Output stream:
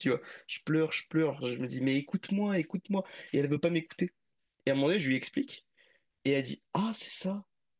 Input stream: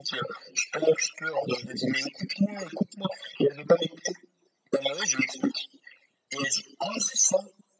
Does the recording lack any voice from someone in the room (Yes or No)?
Yes